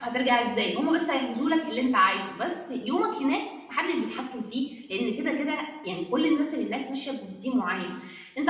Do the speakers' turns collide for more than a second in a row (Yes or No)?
No